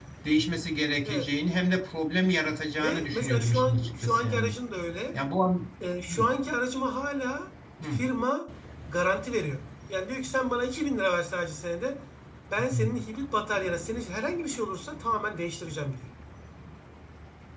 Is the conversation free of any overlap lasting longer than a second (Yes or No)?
No